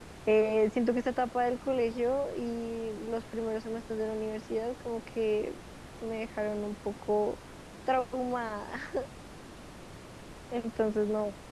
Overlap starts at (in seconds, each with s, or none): none